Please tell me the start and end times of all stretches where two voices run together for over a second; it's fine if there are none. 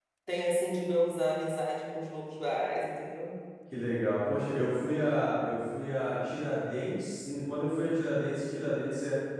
none

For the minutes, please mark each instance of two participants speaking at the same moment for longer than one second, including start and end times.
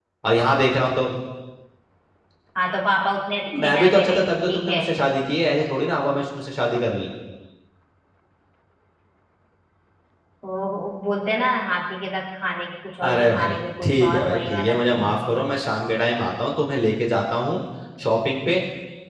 3.6-4.8, 13.0-15.4

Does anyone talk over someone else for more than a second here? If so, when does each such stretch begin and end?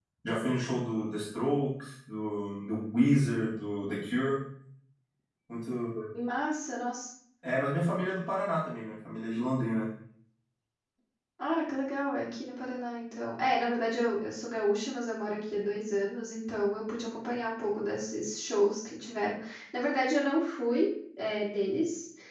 none

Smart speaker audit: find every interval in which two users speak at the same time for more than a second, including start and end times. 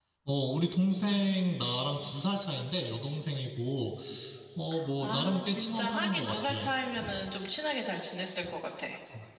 5.0-6.5

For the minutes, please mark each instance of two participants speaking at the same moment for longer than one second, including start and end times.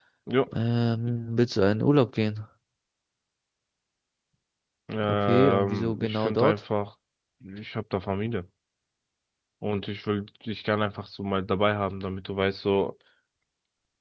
5.1-6.6

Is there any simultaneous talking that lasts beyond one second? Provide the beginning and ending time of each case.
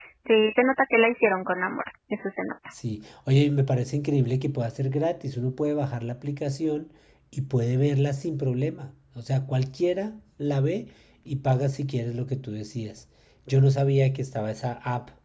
none

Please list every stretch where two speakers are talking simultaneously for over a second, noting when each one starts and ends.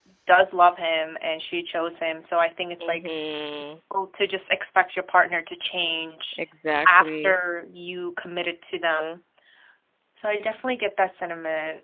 none

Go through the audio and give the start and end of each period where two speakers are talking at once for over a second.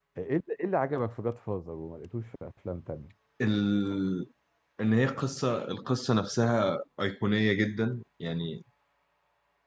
none

